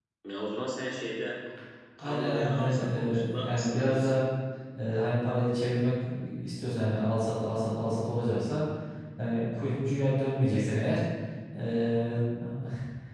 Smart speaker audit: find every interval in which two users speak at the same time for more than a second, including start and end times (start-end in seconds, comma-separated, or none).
2.0-4.2